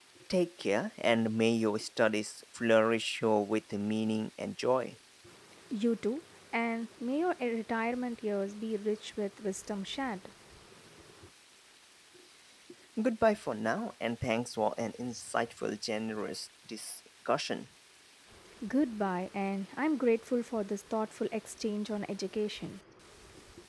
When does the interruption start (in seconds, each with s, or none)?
none